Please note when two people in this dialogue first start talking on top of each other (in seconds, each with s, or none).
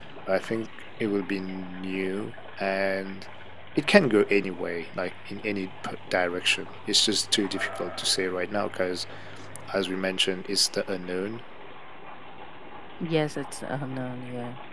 none